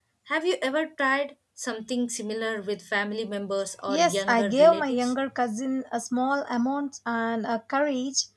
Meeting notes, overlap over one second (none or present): present